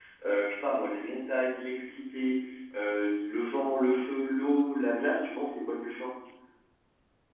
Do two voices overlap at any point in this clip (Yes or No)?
No